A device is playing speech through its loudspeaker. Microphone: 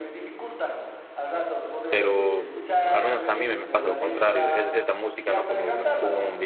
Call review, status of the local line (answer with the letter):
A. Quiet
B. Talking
B